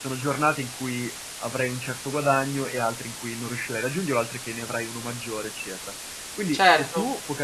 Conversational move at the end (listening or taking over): listening